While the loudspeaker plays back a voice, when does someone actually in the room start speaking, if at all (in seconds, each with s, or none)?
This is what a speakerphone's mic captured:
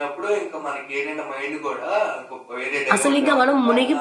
2.9 s